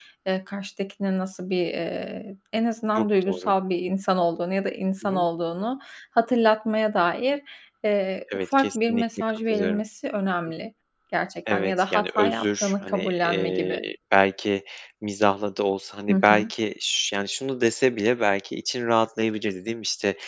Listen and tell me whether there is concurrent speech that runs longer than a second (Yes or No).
Yes